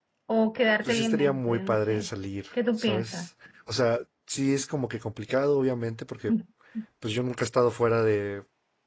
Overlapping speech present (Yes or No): Yes